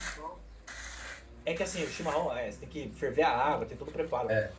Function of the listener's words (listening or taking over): listening